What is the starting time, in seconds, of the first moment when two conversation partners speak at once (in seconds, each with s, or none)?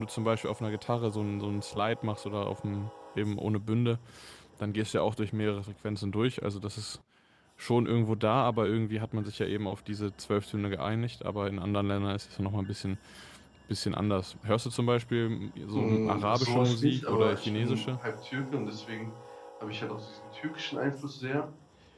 15.7 s